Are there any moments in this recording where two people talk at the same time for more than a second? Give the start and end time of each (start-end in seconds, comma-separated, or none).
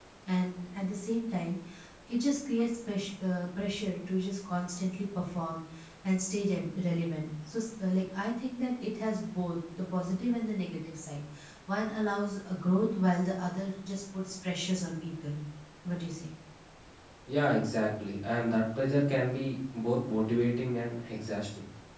none